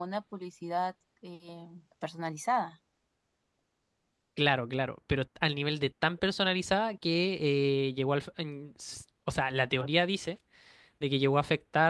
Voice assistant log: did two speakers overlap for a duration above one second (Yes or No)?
No